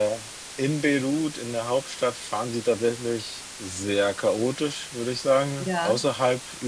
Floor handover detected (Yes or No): No